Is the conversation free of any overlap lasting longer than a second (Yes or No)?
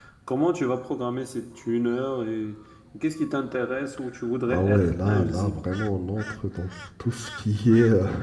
No